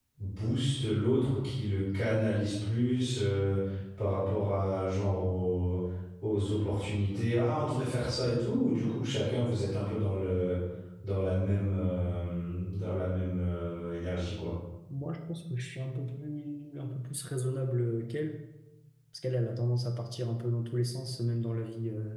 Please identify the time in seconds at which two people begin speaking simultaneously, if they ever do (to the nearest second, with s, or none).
none